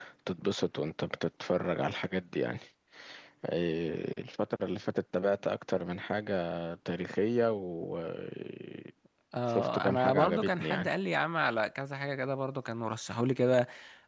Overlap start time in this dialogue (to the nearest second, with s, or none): 9 s